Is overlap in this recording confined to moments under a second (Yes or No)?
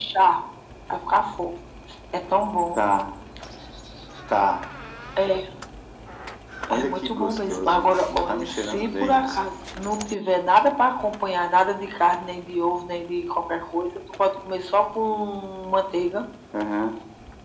No